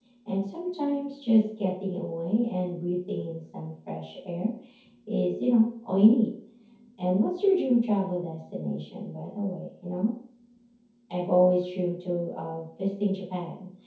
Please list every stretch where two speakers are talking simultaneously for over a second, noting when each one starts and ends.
none

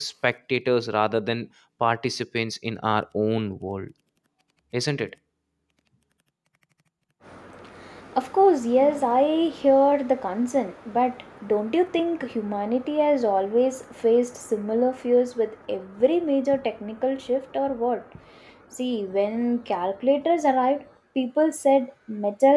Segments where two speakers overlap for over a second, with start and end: none

